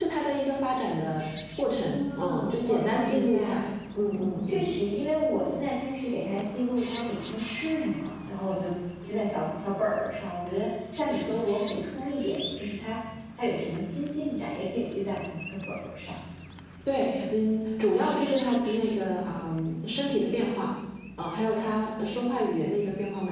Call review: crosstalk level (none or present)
present